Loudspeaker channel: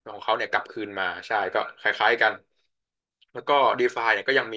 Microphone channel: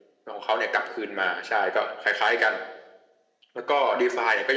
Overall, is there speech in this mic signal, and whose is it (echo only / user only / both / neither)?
echo only